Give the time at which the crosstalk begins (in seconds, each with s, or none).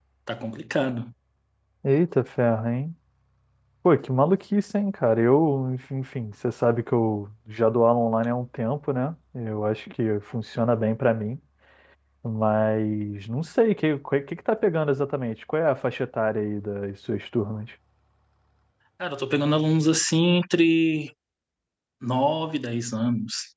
none